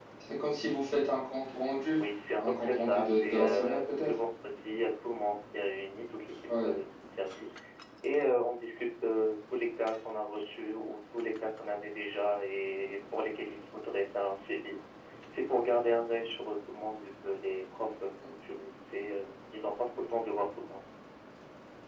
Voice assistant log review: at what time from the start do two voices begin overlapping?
2.4 s

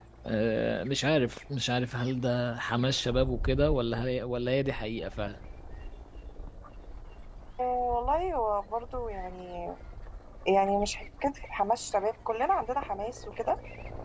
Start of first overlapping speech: none

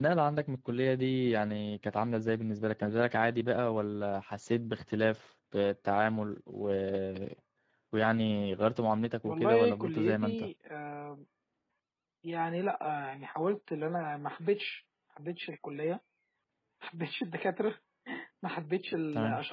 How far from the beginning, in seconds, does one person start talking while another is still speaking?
9.2 s

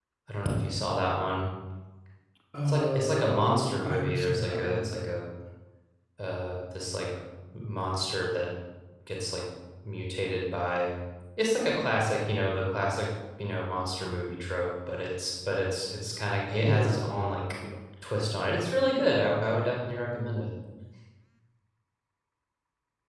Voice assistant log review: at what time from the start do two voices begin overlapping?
2.7 s

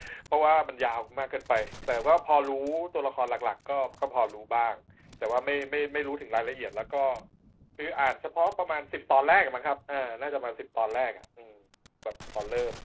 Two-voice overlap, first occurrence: none

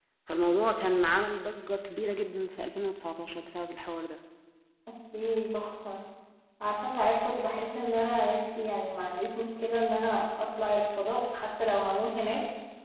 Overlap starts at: none

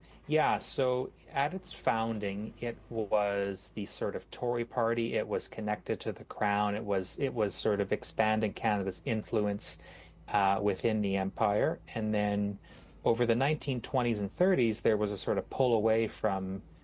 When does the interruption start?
none

